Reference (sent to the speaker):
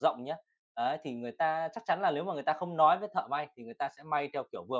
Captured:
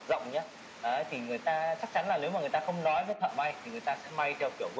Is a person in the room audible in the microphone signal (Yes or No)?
No